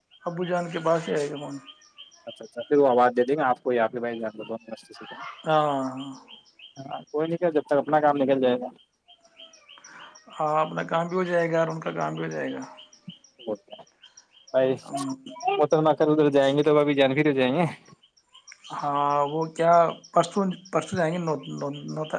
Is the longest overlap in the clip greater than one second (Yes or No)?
No